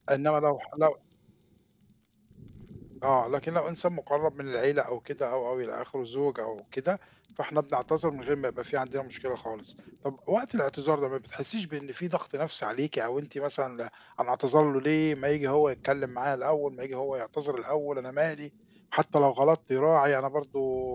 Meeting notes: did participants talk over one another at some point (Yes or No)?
No